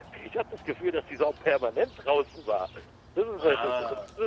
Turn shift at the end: No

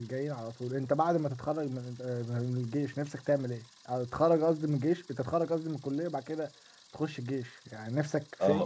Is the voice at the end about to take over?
Yes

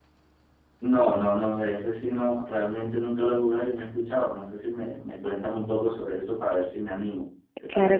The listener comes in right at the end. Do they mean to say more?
Yes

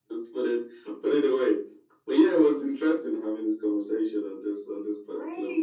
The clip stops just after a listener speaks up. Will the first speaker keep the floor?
No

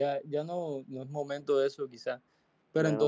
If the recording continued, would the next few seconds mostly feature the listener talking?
No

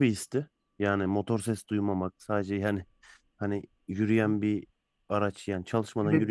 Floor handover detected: Yes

